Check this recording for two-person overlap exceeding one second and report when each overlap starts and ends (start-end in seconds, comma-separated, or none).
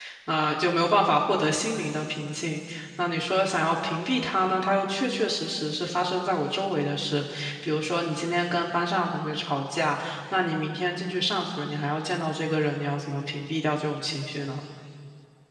none